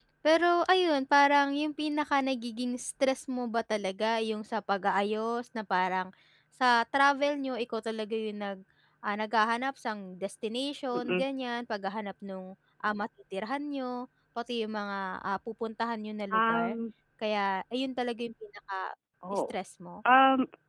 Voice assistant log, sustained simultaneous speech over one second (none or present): none